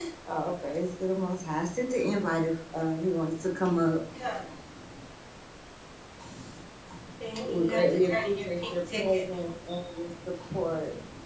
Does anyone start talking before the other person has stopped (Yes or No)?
Yes